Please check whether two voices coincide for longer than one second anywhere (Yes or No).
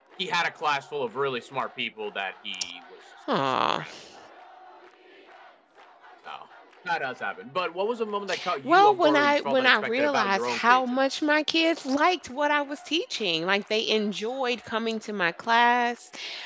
Yes